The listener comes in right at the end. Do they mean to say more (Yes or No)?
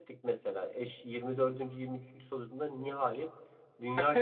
No